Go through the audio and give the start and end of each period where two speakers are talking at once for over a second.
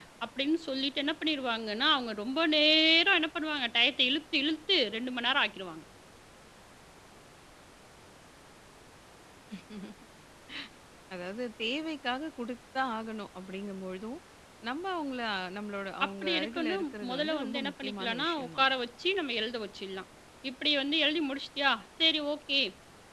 16.0-18.7

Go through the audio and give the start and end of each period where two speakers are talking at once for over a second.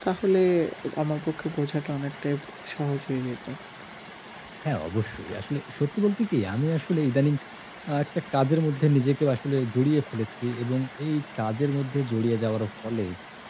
none

